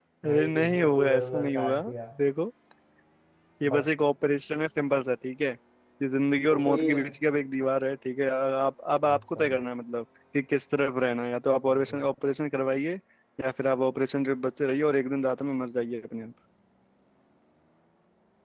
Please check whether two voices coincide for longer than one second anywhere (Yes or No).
Yes